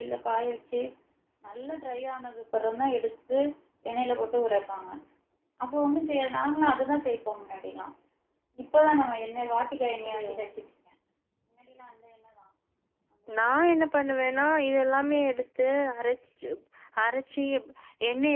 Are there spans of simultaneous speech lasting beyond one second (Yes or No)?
No